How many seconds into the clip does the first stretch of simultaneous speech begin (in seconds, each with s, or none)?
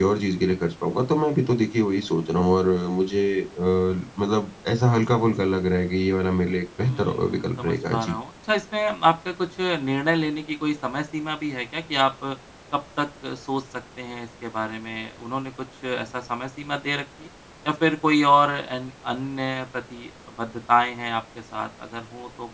6.8 s